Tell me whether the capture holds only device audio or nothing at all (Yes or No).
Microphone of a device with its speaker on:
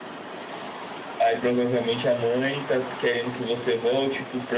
Yes